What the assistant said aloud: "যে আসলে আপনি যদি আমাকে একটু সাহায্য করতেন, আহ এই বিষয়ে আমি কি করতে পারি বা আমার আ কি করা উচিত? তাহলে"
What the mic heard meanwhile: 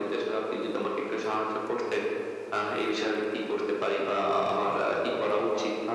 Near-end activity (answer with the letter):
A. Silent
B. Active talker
B